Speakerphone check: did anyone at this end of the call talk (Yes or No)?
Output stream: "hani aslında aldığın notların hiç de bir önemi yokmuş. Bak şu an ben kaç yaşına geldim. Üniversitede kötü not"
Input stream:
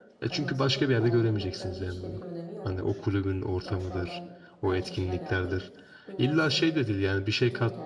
Yes